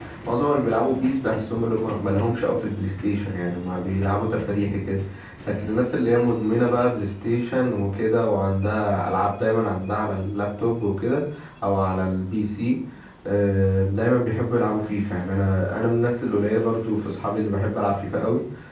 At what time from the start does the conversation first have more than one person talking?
none

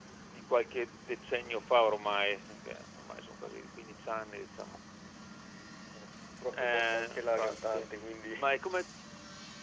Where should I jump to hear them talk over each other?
6.5 s

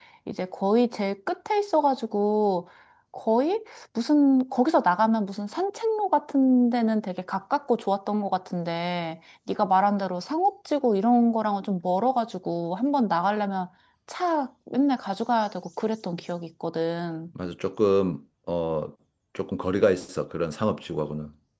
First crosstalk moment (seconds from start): none

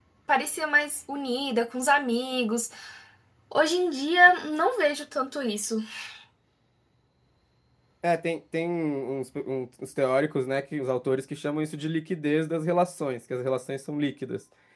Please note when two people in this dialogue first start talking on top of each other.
none

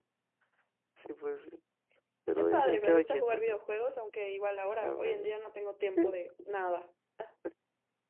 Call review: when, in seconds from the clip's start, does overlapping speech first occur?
2.4 s

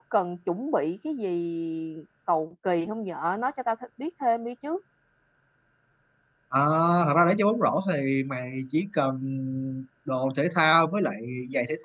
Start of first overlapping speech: none

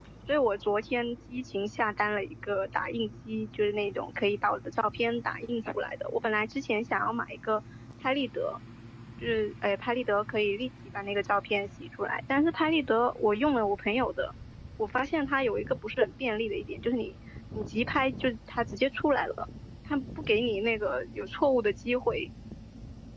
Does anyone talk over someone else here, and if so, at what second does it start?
none

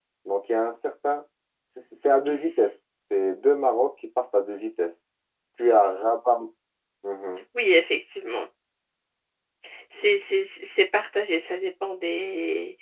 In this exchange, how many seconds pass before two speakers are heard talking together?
none

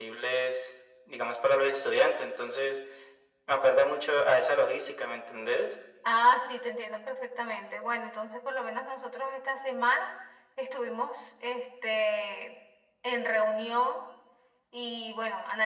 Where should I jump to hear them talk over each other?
none

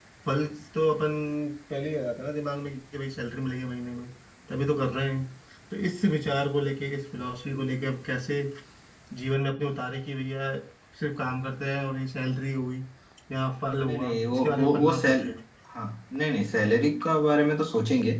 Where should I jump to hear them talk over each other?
13.9 s

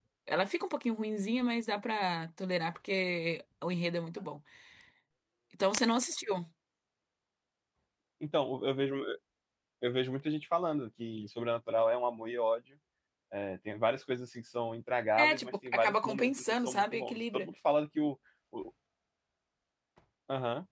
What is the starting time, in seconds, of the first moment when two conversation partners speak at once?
15.2 s

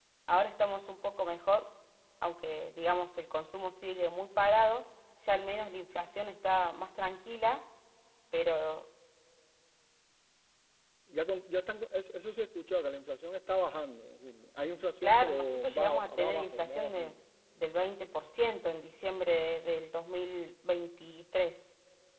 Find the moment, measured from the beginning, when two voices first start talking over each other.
15.0 s

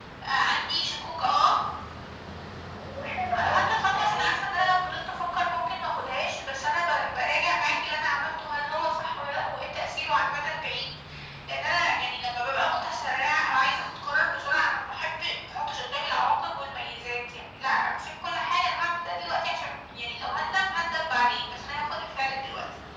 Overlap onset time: 3.4 s

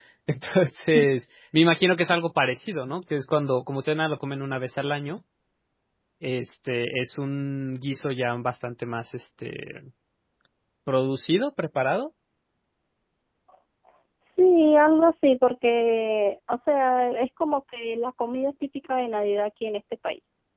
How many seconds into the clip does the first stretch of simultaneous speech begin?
none

